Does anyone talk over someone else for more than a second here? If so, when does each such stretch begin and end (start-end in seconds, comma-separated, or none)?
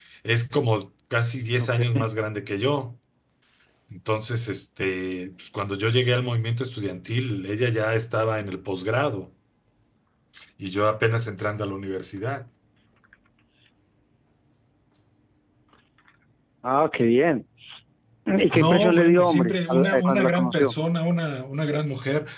18.5-20.7